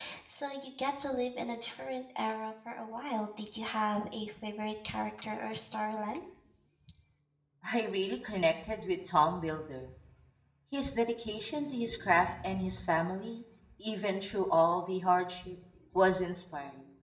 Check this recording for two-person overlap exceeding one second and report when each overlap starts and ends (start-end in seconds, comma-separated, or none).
none